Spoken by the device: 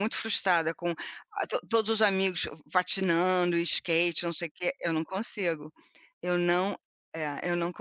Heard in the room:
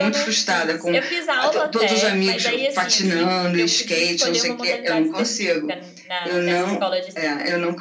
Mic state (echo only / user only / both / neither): both